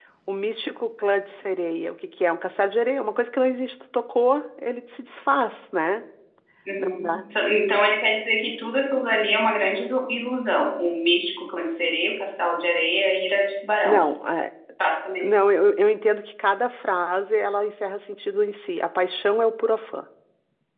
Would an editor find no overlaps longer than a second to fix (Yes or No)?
Yes